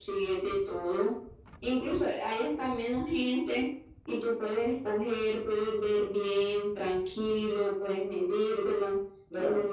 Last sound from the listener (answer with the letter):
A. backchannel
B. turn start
A